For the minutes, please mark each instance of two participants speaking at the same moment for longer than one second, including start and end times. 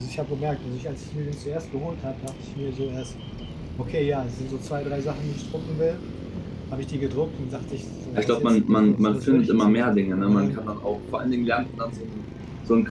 8.2-10.6

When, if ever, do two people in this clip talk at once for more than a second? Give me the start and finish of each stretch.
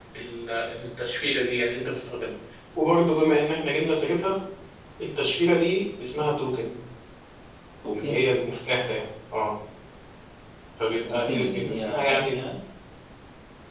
11.1-12.4

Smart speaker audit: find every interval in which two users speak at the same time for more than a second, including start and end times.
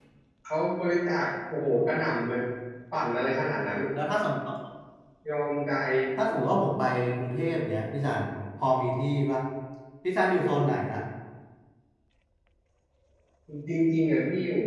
none

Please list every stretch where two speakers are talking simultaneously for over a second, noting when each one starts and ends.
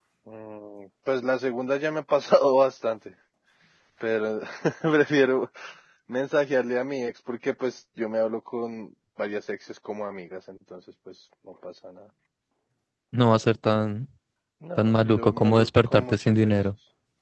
14.8-16.5

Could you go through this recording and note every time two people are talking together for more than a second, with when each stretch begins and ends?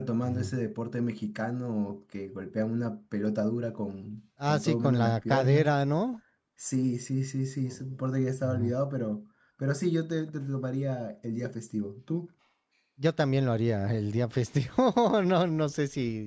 4.5-5.8

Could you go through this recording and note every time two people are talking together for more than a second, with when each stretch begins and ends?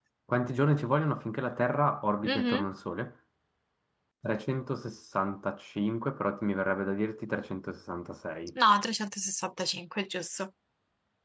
none

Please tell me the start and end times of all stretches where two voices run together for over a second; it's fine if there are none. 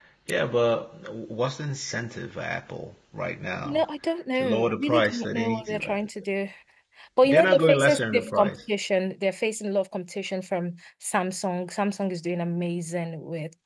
4.4-6.0, 7.2-8.6

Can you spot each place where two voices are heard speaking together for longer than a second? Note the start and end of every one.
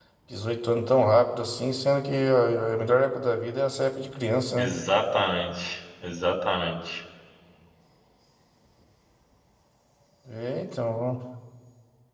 none

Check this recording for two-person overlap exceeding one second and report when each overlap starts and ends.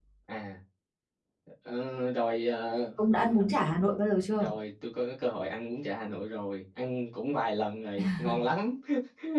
none

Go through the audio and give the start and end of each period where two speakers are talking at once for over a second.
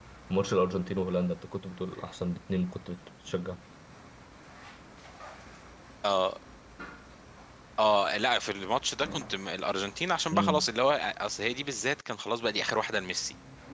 none

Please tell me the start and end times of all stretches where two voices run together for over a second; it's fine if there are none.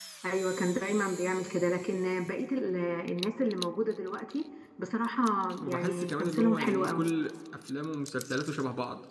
5.6-7.0

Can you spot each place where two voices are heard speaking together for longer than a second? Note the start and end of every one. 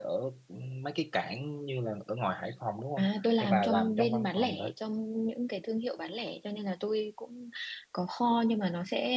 3.4-4.6

